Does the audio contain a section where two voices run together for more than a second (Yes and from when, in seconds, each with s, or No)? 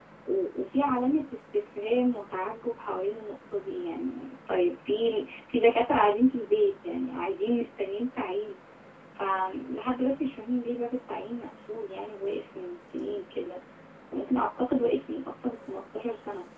No